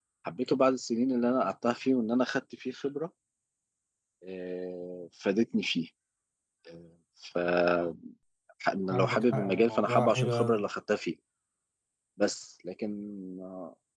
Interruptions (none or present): present